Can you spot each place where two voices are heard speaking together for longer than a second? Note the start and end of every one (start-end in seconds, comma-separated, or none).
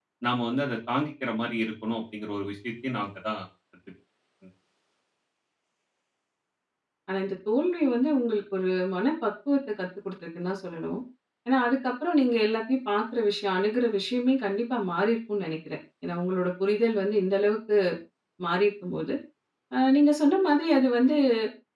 none